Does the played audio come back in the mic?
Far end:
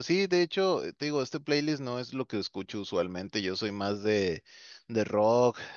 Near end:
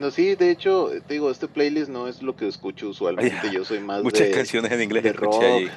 Yes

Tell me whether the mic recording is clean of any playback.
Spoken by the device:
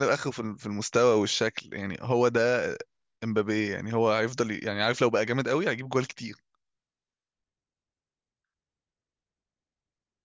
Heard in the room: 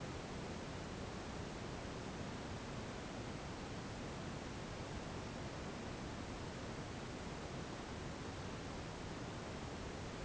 Yes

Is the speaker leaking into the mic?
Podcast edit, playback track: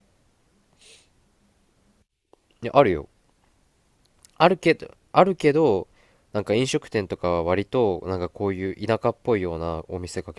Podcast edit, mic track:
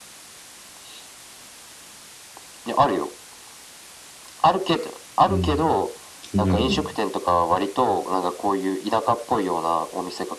Yes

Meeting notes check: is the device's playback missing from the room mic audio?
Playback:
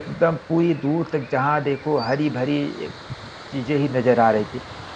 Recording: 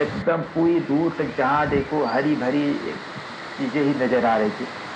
No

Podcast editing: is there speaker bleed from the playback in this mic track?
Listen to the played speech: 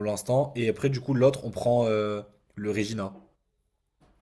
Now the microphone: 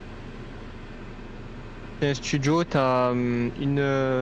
No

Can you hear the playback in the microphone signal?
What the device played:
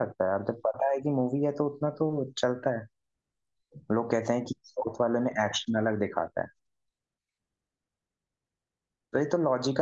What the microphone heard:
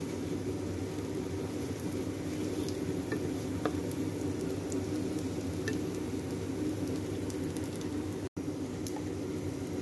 No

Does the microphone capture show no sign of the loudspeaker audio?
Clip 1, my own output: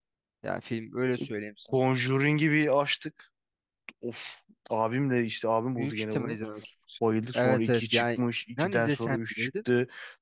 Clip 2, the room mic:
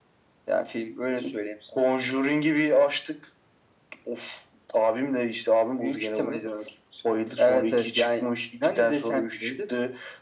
No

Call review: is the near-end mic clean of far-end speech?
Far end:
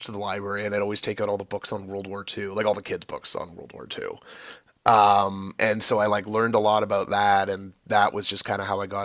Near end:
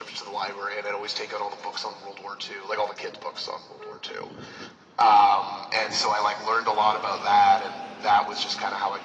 No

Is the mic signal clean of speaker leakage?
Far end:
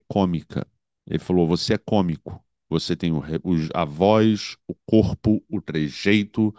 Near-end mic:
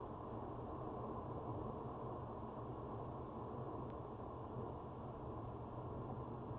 Yes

